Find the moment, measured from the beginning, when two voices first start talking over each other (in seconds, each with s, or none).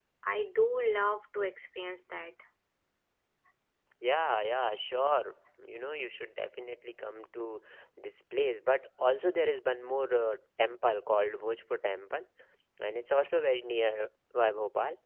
none